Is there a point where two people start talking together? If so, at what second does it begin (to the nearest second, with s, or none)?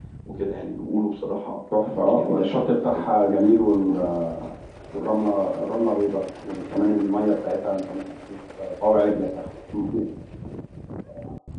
2 s